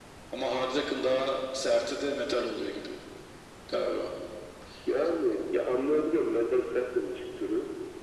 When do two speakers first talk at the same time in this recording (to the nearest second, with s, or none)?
none